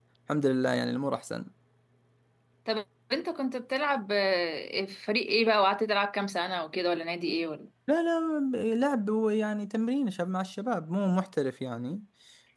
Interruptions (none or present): none